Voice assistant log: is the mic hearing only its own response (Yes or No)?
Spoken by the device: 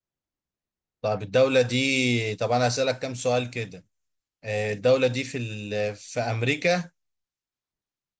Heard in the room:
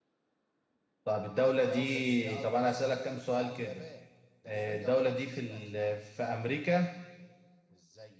No